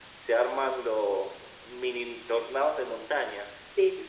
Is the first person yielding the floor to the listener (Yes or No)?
No